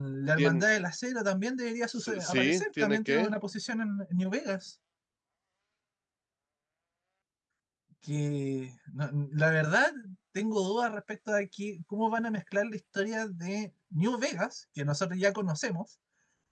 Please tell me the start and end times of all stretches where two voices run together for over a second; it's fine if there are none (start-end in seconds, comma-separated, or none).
2.0-3.3